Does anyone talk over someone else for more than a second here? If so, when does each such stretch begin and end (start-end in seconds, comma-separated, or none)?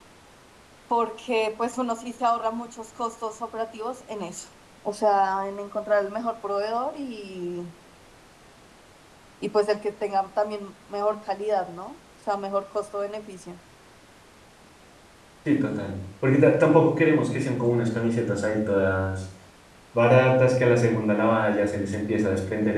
none